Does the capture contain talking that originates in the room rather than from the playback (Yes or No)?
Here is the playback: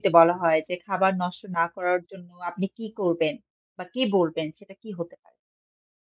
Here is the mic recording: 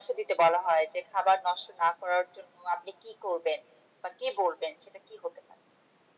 No